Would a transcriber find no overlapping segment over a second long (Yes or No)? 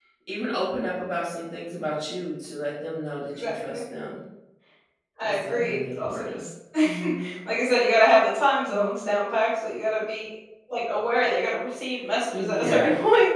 No